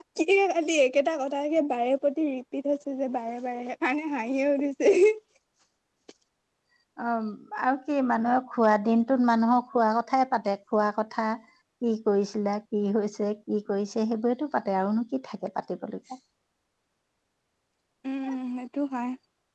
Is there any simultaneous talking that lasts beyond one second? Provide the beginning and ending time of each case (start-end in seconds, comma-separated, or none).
none